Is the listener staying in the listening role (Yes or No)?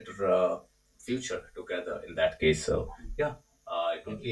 Yes